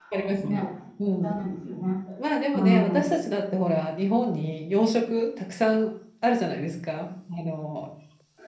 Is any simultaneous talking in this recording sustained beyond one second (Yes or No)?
No